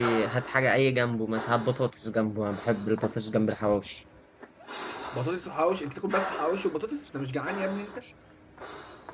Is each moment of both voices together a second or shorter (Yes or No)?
Yes